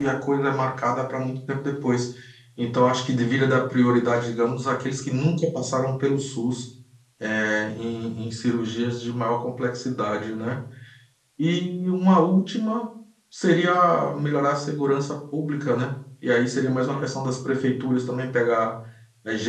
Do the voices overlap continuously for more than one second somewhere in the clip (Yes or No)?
No